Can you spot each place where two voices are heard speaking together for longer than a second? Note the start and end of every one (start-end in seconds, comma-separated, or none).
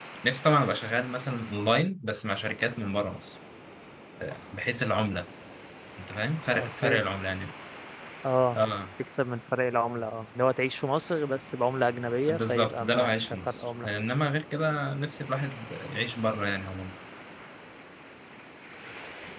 12.3-13.9